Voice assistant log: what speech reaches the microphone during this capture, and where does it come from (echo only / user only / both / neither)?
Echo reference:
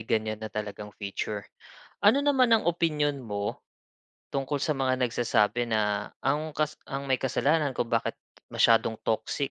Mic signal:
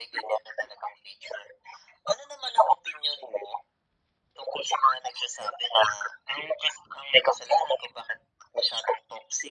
echo only